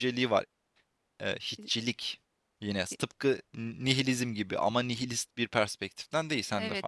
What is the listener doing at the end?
taking over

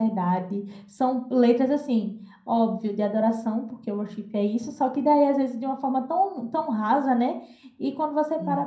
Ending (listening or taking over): listening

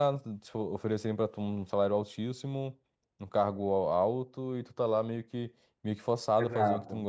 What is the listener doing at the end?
taking over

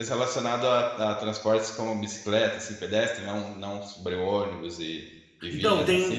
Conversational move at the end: taking over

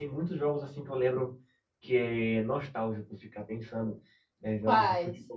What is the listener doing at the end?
listening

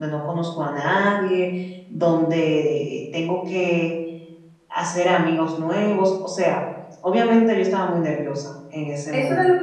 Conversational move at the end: taking over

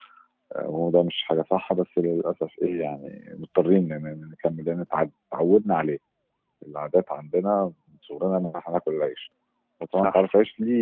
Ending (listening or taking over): listening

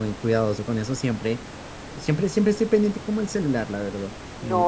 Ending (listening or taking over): taking over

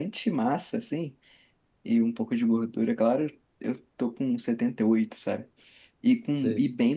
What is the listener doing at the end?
listening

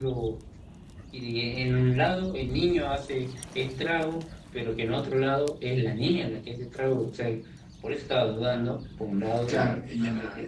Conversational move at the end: taking over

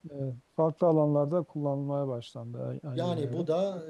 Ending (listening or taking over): taking over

